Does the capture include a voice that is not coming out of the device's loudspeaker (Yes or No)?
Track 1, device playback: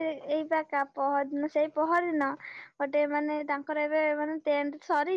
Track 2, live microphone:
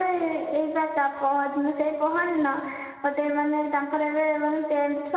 No